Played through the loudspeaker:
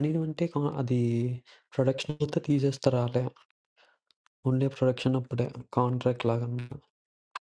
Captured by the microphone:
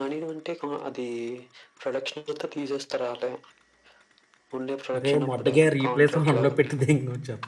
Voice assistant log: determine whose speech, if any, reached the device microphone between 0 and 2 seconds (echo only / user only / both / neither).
echo only